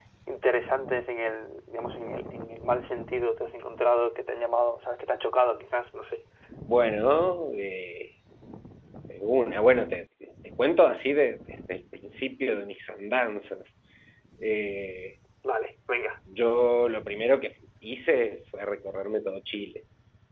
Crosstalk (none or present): none